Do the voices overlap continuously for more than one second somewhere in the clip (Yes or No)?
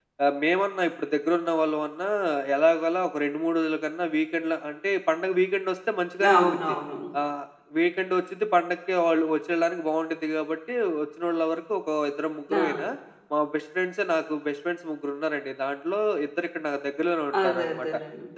No